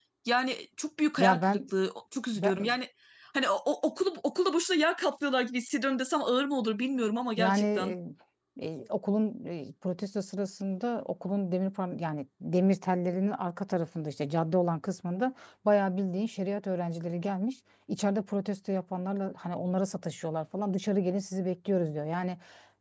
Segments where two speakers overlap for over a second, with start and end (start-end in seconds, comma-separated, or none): none